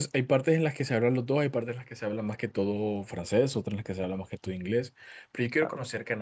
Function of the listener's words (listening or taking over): listening